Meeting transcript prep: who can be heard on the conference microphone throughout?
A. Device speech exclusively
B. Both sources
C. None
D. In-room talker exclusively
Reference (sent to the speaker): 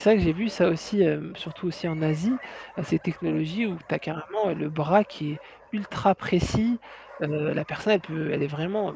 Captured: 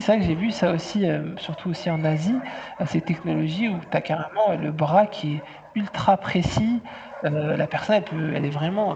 A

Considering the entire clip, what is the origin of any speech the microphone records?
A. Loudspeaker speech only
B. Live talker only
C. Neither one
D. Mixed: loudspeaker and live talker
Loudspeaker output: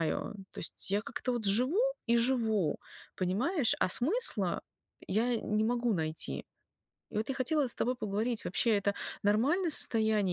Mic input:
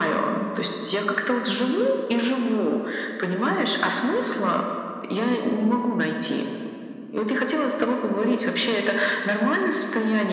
A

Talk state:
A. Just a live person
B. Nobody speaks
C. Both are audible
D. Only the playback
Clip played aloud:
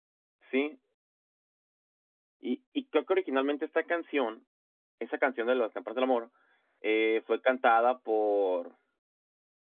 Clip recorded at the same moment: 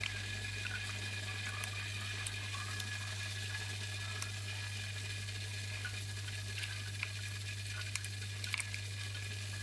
B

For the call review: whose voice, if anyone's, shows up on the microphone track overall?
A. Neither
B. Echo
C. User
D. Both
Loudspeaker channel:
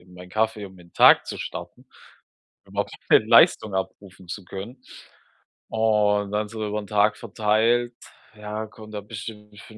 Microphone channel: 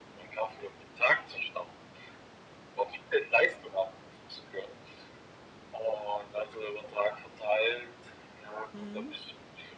D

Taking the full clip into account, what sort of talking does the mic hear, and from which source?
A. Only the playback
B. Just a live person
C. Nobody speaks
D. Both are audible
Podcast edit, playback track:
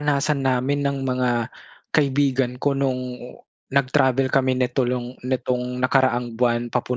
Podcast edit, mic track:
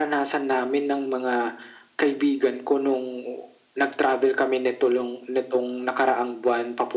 A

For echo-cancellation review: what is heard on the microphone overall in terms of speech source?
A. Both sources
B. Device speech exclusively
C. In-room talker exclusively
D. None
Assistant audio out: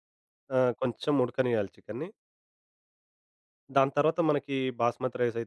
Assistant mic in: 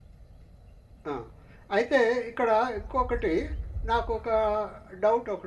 C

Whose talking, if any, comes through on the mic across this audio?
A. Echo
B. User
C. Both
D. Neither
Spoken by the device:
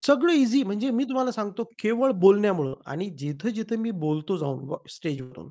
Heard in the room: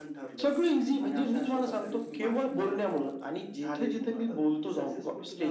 C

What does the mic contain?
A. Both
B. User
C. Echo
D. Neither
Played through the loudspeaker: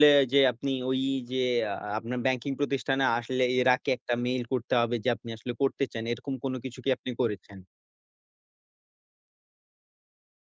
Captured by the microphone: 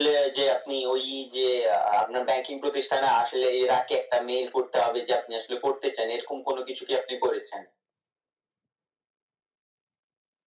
C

